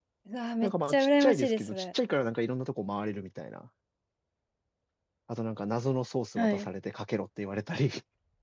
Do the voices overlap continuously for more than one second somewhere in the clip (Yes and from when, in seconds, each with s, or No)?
Yes, from 0.6 s